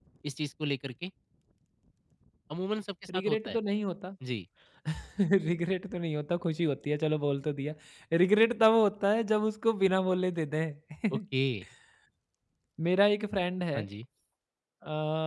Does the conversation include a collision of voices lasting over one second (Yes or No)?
No